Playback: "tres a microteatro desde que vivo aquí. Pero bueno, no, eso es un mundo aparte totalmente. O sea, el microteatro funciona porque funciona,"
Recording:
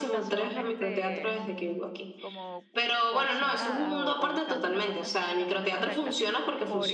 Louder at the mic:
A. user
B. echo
B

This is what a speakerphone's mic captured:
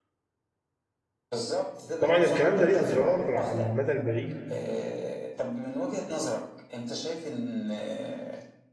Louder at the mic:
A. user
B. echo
A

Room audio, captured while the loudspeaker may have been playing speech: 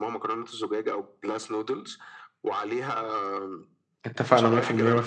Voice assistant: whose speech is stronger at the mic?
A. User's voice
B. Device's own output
A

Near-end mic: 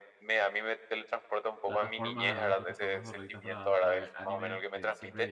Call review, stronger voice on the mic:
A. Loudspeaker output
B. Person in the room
A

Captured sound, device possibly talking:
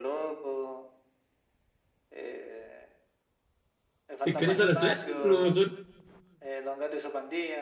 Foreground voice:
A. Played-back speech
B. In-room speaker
B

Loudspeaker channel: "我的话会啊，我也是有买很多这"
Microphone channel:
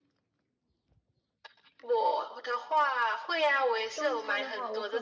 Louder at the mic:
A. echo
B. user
A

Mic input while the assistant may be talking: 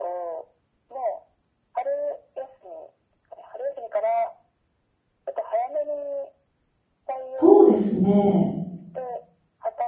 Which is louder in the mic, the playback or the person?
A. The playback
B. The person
B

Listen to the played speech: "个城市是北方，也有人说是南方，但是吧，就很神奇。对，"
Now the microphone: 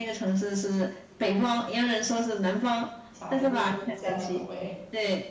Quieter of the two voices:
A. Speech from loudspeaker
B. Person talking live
B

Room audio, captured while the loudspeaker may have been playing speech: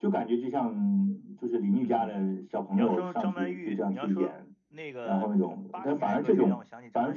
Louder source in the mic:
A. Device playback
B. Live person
A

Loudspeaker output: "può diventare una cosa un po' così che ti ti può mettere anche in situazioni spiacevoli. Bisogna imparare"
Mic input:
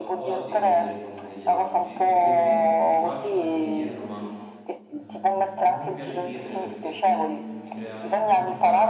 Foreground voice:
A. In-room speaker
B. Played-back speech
B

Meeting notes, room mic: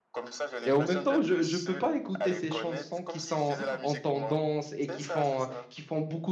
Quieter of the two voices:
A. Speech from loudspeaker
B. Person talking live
A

